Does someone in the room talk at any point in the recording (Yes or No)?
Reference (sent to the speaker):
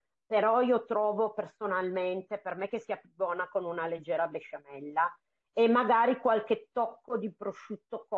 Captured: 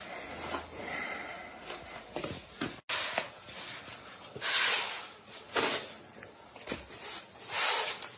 No